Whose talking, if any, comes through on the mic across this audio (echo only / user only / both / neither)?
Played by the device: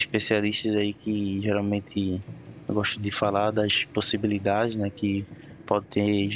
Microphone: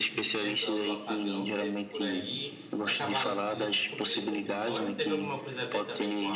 both